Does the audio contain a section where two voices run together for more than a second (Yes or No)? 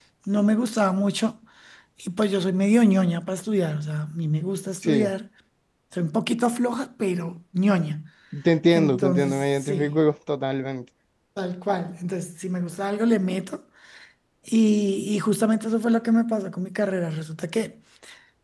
Yes